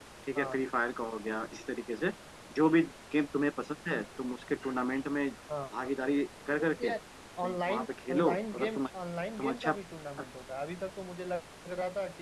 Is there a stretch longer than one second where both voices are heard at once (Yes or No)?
Yes